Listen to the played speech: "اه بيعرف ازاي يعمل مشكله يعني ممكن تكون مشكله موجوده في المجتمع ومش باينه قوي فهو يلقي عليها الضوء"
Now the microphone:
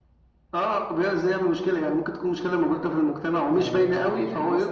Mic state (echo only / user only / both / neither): both